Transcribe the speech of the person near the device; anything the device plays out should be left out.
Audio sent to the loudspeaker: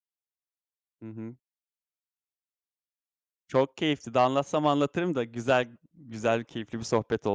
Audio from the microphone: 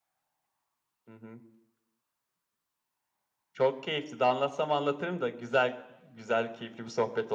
none

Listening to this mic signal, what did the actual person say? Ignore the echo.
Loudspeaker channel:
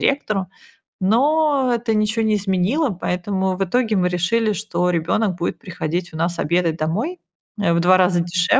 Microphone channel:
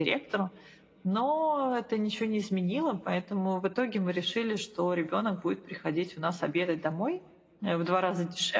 none

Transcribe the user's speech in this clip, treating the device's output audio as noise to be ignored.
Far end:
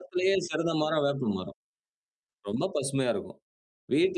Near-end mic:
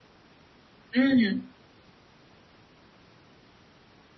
ம்.

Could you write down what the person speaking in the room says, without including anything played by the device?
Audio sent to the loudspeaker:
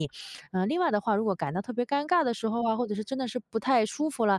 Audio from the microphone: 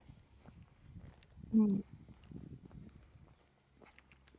嗯。

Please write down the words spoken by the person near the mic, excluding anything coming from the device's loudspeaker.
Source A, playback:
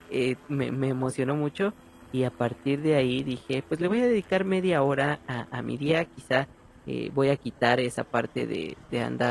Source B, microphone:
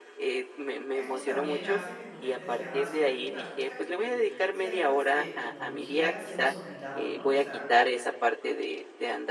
esto también hace que tu mente sea más creativa, cosa que, con ciertas, eh, tecnologías hemos olvidado, ¿no?, o sea,

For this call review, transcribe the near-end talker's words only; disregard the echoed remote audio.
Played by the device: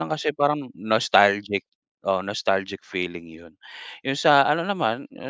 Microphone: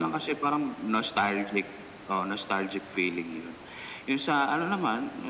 none

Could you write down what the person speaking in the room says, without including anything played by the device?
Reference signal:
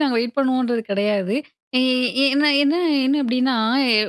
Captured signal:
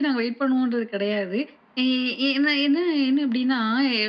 none

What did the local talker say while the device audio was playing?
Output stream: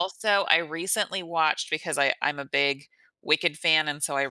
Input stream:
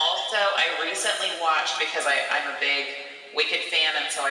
none

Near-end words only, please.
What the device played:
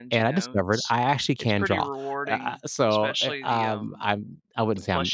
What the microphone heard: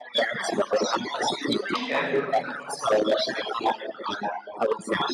Okay.

